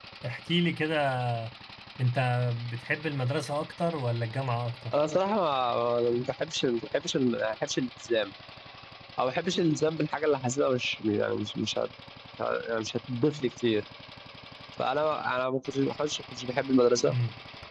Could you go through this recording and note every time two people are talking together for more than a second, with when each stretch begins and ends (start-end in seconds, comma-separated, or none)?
none